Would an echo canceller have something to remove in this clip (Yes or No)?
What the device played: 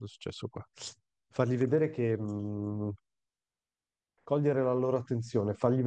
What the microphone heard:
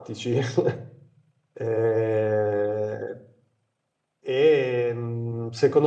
No